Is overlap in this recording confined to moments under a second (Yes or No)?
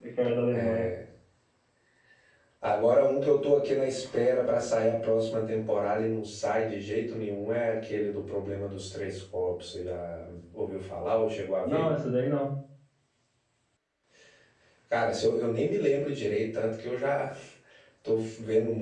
Yes